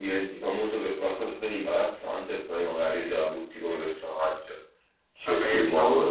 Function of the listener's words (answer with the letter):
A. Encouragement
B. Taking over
B